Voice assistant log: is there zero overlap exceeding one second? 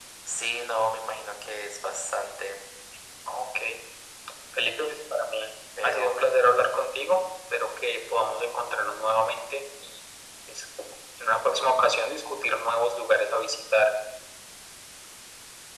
Yes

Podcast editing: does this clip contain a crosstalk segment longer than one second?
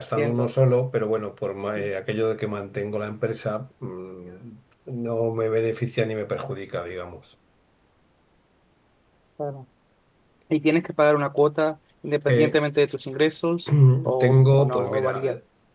Yes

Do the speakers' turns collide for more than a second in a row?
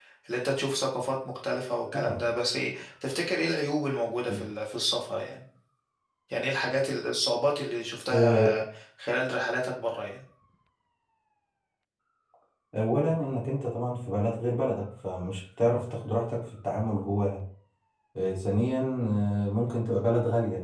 No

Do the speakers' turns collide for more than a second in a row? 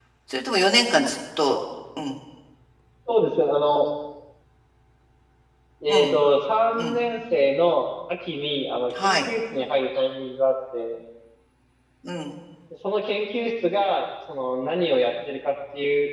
No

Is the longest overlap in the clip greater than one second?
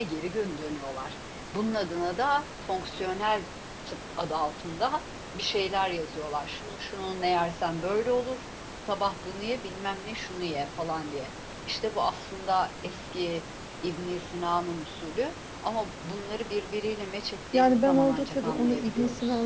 Yes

